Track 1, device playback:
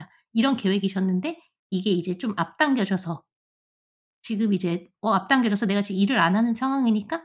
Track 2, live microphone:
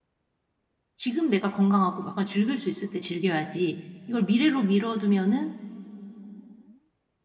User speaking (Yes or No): Yes